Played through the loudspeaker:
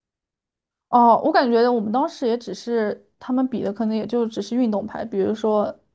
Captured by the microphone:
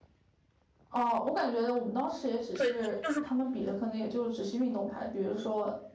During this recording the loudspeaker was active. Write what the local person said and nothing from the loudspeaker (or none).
对，就是